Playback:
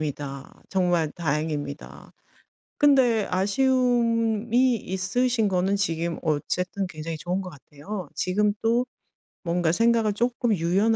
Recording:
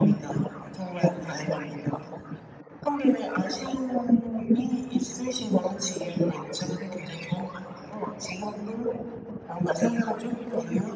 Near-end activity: none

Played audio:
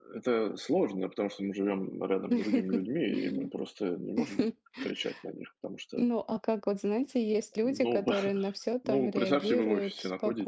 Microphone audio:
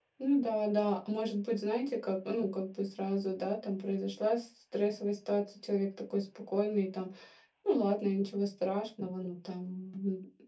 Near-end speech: present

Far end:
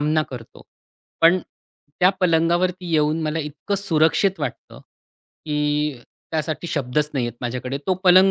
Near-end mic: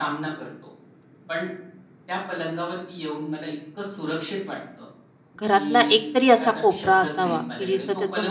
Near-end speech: present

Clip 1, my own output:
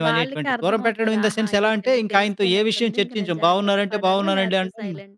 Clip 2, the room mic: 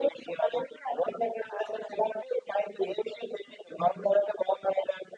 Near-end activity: none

